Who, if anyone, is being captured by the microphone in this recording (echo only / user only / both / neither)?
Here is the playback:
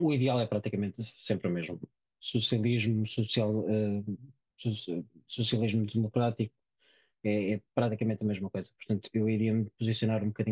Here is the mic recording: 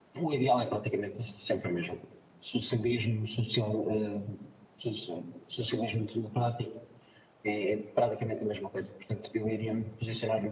echo only